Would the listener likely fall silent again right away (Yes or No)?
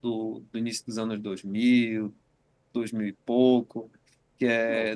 Yes